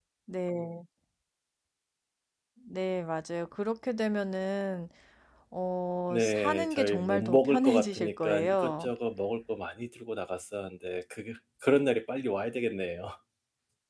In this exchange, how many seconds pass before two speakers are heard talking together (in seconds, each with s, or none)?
6.1 s